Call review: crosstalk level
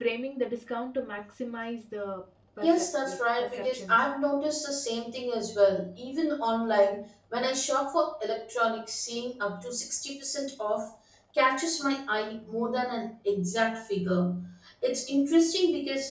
present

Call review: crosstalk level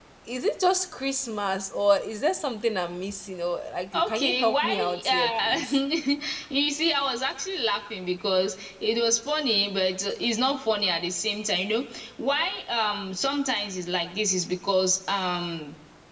present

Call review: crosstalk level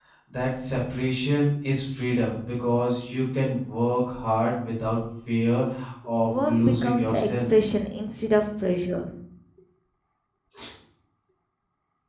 present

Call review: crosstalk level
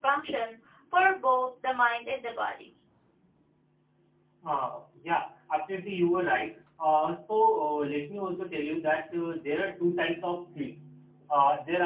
none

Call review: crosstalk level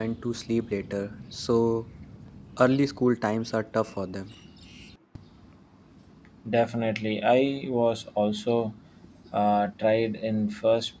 none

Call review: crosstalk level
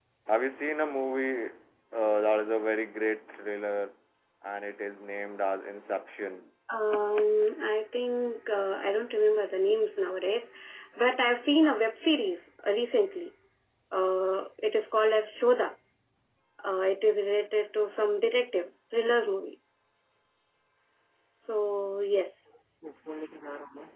none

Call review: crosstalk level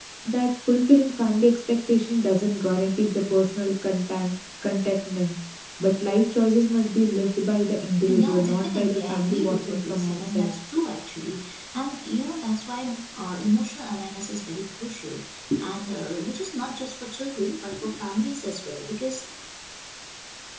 present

